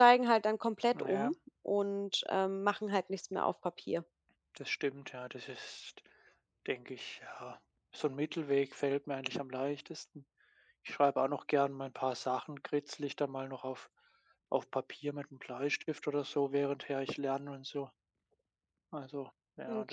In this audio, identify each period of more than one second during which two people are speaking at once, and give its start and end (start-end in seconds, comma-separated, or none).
none